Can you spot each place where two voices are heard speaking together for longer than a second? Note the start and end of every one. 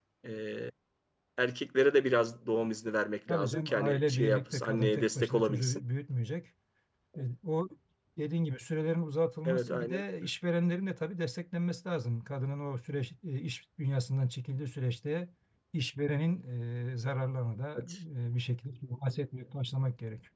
3.3-5.8

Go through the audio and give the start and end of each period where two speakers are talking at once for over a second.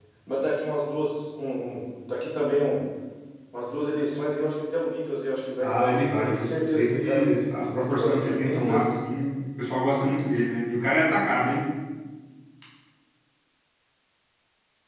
5.6-8.8

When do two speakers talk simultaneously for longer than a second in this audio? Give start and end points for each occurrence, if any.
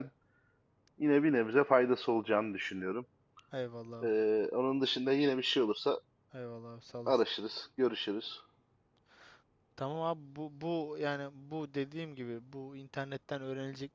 none

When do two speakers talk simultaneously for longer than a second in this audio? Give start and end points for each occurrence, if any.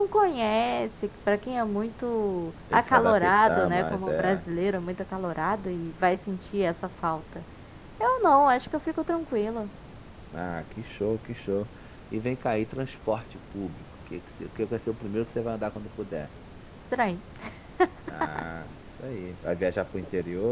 2.7-4.5

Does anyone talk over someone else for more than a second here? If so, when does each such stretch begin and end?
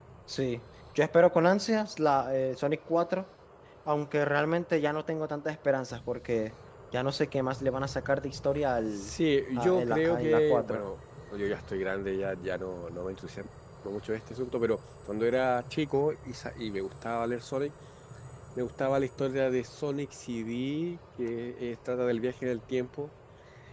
9.6-10.8

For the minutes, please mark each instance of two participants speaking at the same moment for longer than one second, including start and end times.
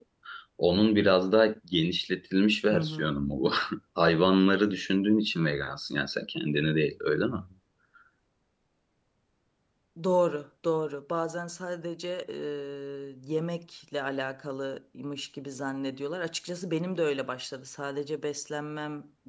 none

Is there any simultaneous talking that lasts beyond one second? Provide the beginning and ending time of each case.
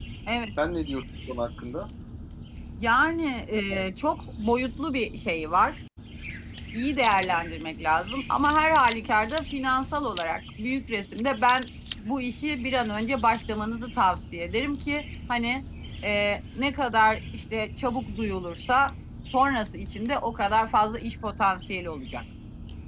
none

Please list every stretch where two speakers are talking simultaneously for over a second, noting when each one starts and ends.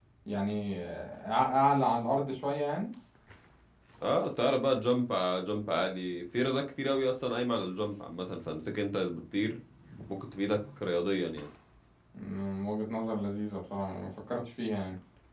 none

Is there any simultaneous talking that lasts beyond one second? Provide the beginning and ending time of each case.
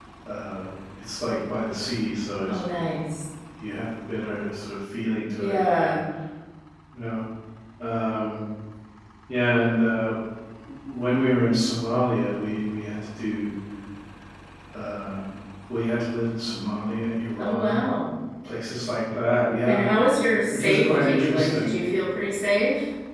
20.5-21.8

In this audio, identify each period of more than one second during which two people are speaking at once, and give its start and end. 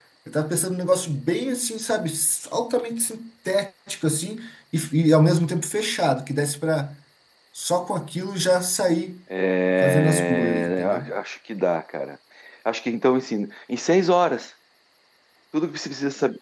9.8-11.1

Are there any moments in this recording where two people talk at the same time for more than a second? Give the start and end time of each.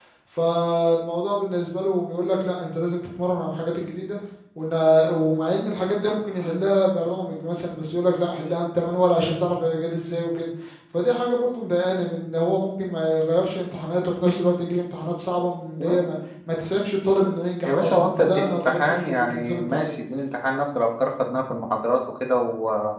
17.6-19.9

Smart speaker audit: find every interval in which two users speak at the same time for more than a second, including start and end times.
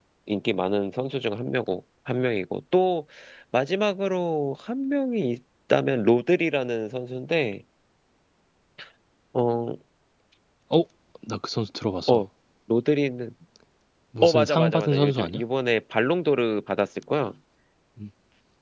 14.2-15.4

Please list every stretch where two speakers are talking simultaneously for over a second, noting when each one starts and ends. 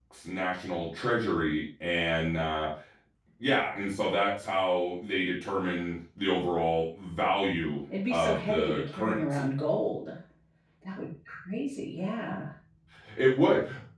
8.1-9.4

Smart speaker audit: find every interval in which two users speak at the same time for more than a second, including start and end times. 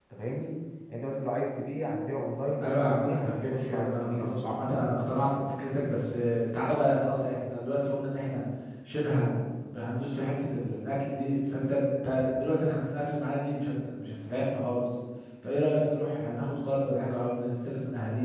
2.6-4.3

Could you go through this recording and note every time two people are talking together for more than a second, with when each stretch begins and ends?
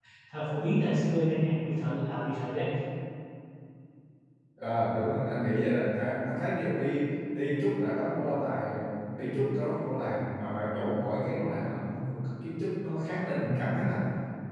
none

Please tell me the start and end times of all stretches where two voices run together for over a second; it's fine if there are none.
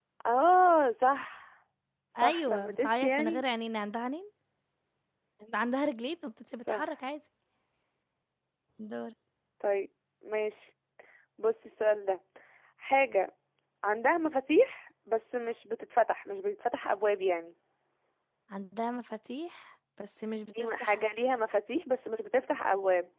2.2-3.4

